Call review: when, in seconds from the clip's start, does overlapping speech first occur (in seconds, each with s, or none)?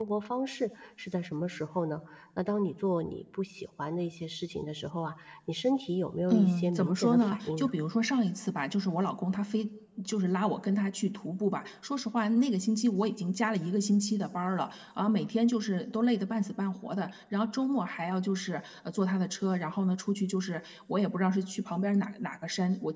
6.3 s